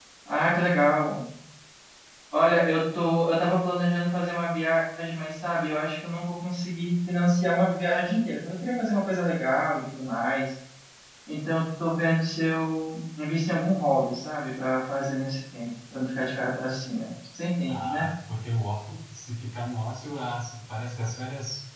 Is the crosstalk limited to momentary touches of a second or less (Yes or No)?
Yes